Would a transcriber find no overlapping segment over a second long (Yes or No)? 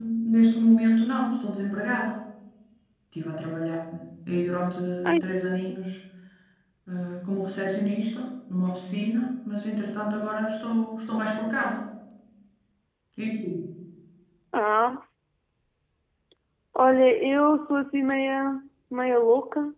Yes